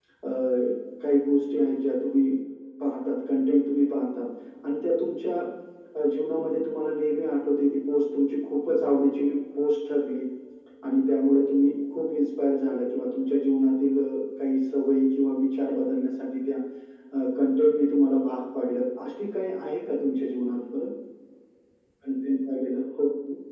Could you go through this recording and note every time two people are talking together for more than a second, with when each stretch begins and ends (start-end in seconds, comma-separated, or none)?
none